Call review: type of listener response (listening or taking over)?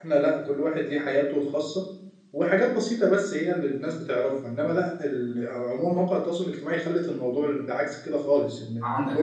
taking over